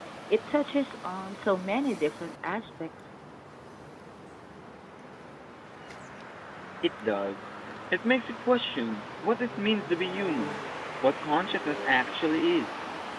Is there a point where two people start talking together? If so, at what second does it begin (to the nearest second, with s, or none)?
none